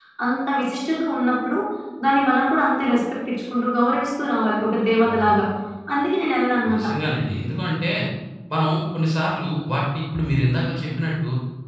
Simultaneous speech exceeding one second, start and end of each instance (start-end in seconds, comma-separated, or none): none